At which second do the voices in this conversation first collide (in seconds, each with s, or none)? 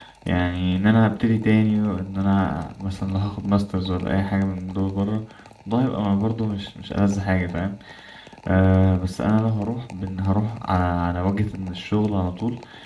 none